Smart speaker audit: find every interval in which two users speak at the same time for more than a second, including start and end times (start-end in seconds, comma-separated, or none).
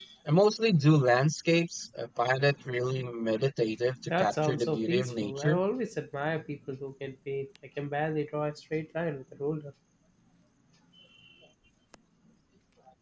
4.1-5.6